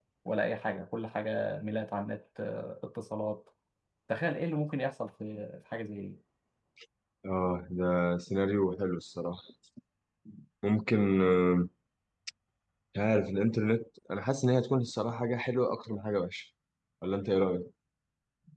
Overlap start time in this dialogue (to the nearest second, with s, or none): none